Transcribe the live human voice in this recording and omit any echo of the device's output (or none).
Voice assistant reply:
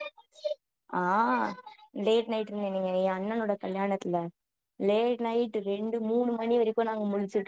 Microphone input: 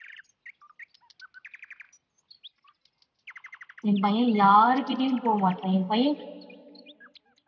எம் பைய யாருகிட்டியு போ மாட்டா எ பைய